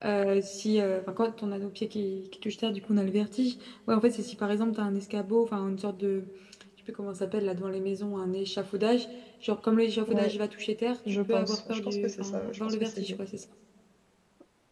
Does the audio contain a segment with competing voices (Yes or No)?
Yes